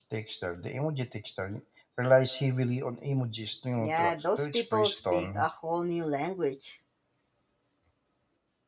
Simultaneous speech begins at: 3.8 s

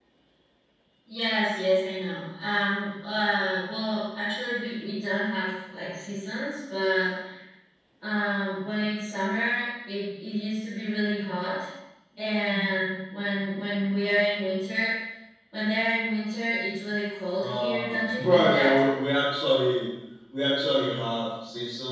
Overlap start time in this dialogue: 17.4 s

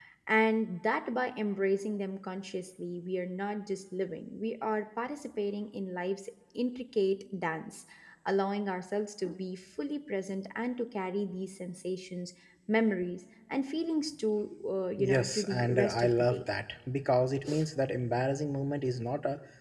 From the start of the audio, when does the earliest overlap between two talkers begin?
15.0 s

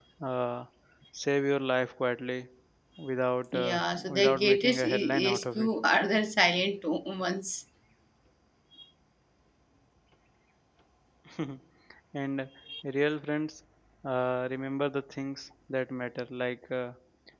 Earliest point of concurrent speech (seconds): 3.5 s

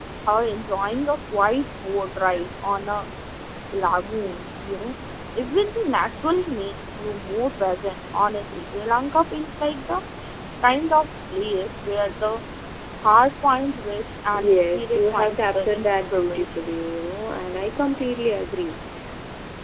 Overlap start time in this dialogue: 14.2 s

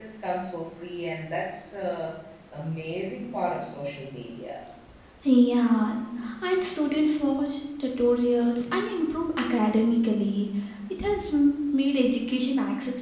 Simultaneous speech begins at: none

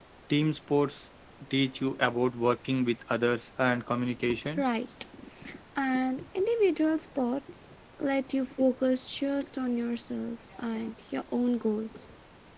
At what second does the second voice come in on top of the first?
none

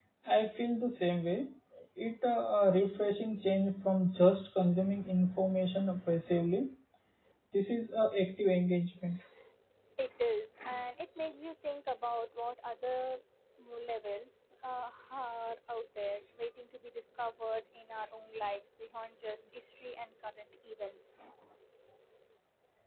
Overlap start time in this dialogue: none

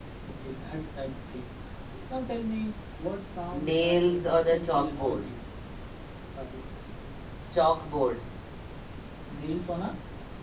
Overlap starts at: 3.5 s

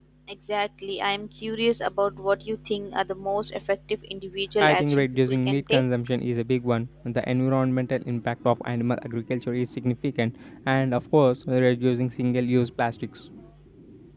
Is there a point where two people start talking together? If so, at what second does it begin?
4.6 s

